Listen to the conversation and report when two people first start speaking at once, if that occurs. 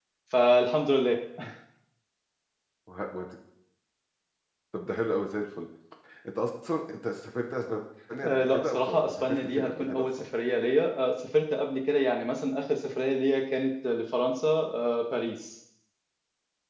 8 s

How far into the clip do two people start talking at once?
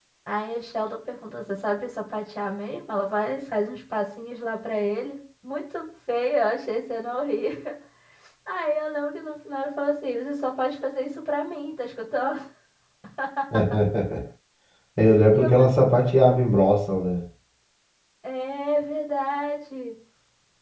15 s

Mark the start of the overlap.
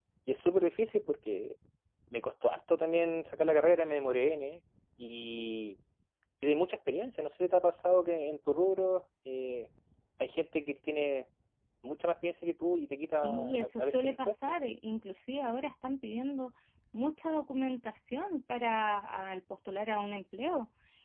13 s

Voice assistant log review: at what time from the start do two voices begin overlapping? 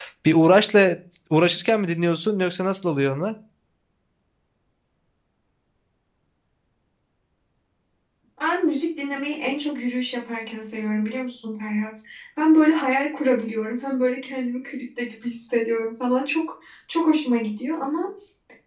none

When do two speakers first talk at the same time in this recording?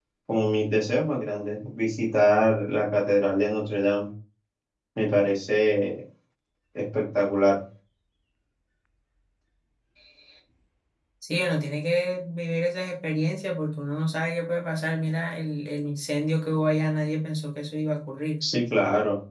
none

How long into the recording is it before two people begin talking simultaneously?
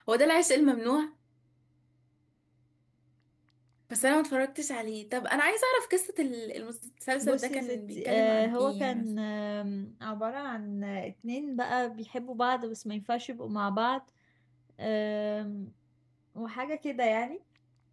7 s

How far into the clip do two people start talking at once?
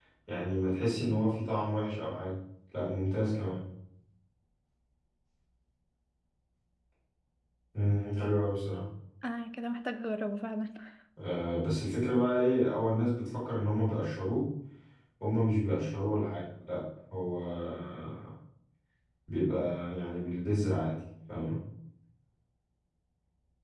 none

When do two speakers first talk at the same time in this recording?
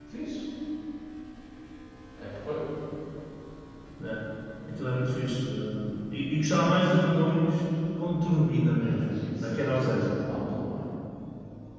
9 s

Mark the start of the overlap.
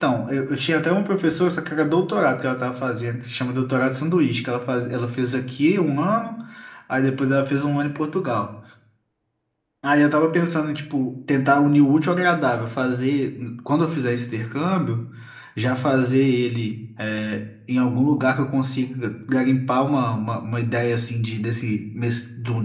none

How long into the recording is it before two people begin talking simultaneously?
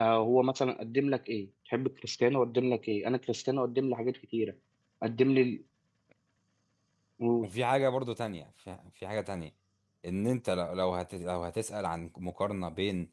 none

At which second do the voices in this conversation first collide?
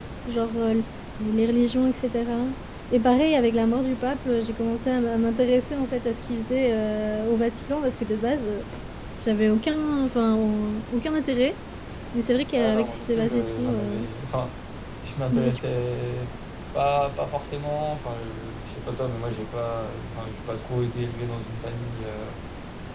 13 s

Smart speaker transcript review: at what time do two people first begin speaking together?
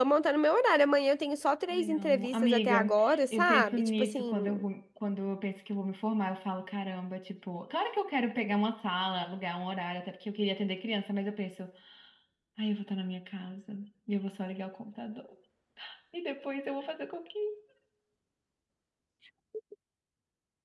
2 s

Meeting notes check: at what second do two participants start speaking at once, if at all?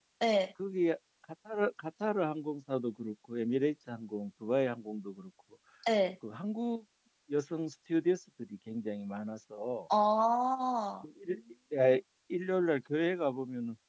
none

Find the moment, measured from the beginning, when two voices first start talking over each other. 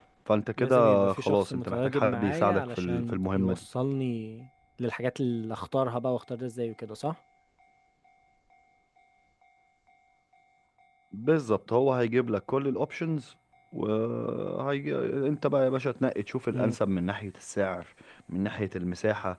1 s

